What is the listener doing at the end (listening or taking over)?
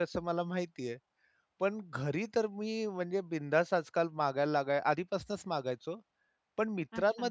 listening